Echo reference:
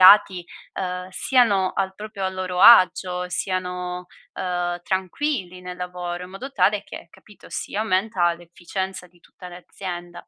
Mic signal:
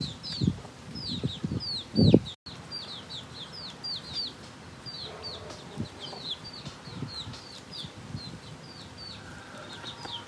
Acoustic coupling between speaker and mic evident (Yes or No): No